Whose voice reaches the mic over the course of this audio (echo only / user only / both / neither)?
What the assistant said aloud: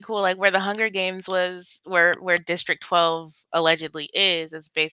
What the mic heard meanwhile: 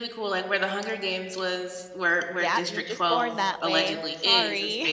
both